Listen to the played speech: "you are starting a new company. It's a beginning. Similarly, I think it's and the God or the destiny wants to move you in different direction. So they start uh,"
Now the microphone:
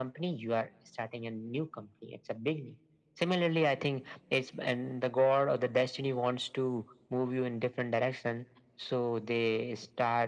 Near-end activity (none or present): none